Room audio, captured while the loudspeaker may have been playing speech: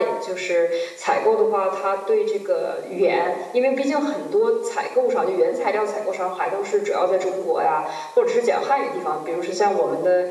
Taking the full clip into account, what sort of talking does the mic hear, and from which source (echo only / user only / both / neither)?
echo only